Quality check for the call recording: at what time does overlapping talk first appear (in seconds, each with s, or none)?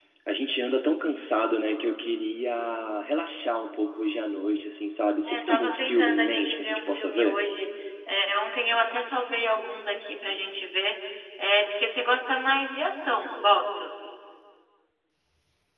5.2 s